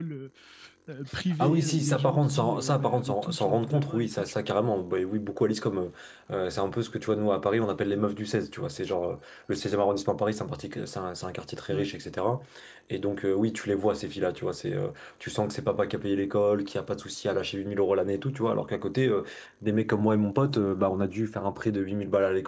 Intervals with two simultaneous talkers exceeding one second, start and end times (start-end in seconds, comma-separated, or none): 1.4-4.3